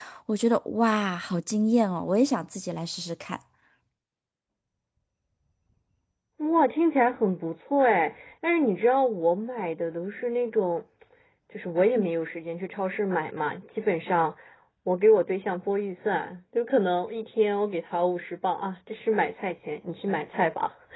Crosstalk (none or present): none